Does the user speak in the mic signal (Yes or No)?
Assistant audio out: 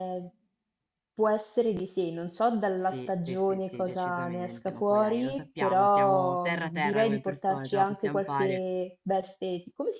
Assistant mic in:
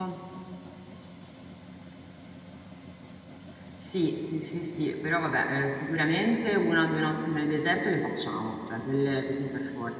Yes